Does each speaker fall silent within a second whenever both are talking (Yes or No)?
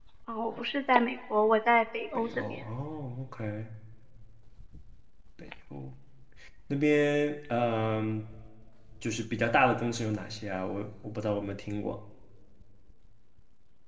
Yes